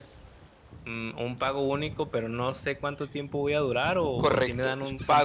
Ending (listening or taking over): taking over